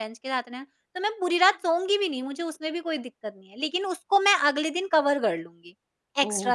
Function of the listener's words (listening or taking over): taking over